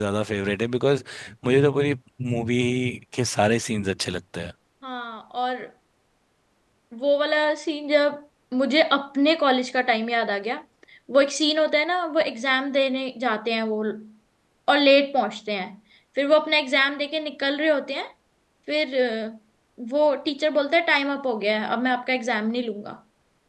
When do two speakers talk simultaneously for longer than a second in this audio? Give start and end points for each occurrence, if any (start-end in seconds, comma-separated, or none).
none